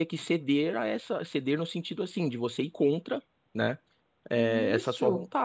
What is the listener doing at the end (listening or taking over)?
listening